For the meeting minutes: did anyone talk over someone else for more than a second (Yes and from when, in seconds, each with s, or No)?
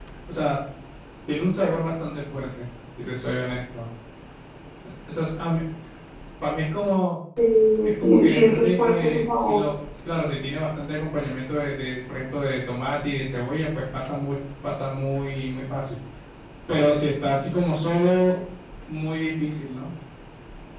Yes, from 8.0 s